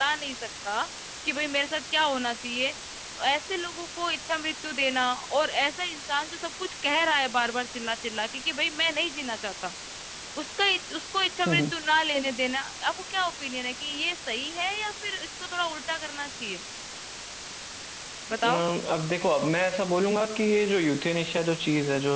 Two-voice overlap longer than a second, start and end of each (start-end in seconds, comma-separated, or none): none